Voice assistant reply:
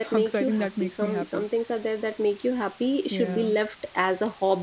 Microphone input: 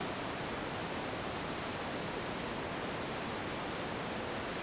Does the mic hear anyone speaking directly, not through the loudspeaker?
No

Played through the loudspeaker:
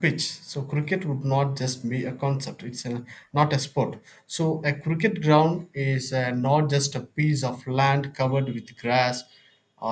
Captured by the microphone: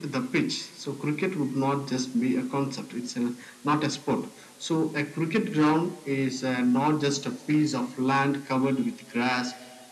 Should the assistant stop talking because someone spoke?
No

